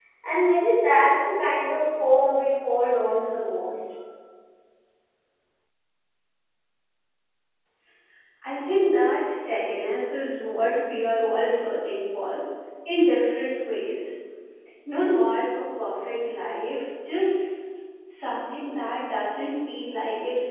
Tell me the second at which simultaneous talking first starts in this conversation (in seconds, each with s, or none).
none